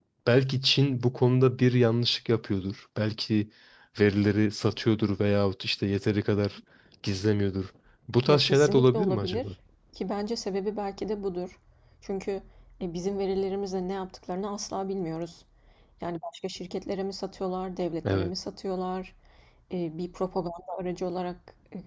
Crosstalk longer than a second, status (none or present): present